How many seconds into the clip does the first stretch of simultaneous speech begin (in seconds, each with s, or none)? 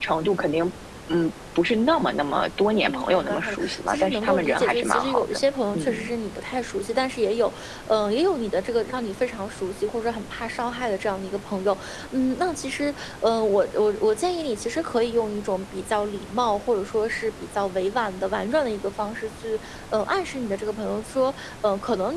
2.7 s